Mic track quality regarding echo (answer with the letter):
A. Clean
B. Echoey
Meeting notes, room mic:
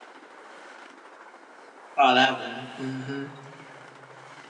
A